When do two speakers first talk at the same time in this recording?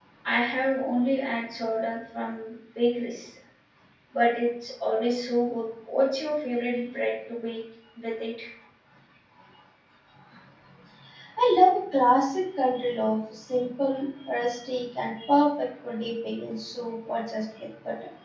none

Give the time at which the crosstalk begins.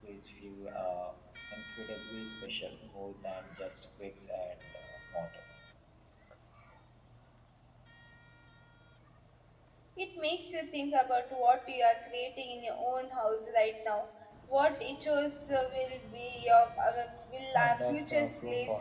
17.6 s

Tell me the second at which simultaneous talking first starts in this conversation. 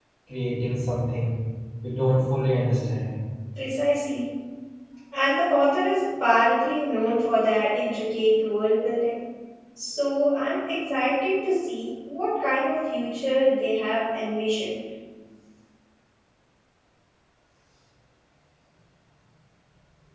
none

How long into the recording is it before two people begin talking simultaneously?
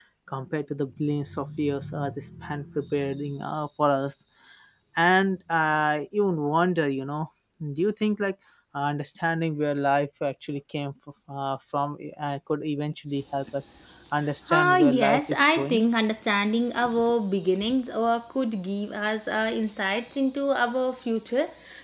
14.6 s

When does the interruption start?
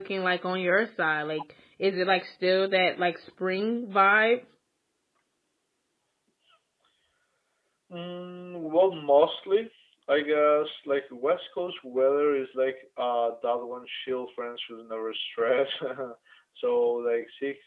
none

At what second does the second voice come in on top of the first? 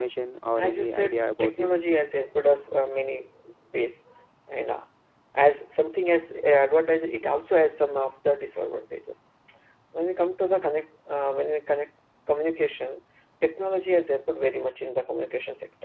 0.6 s

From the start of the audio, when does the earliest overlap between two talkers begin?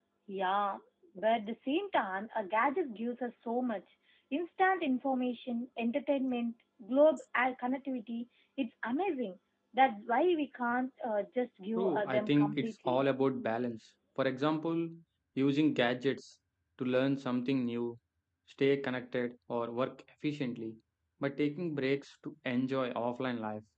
11.8 s

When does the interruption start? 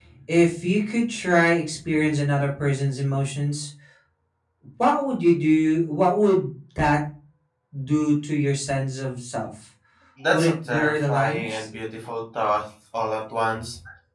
10.3 s

